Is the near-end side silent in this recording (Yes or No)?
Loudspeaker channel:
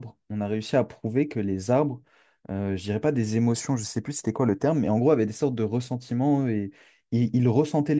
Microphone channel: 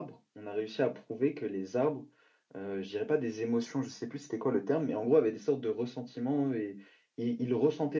Yes